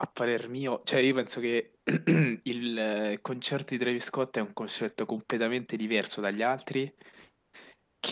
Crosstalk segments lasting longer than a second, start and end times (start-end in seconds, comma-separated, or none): none